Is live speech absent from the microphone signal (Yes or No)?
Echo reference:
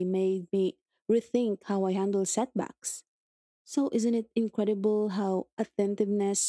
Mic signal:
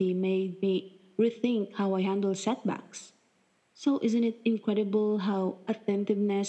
Yes